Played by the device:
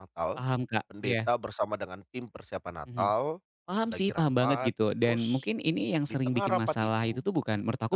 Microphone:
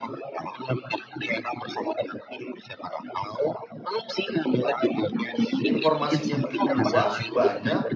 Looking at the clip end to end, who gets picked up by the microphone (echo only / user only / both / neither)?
both